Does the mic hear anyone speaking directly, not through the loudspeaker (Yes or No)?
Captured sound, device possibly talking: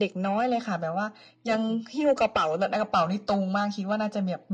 No